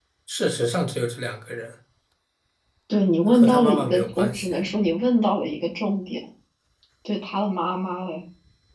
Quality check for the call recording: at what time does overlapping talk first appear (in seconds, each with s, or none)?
3.3 s